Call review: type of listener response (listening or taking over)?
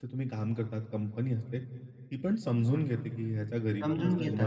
taking over